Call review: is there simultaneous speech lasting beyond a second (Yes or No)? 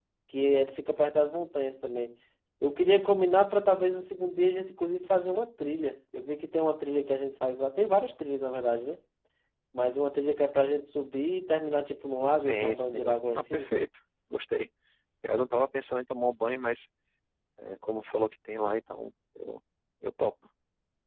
Yes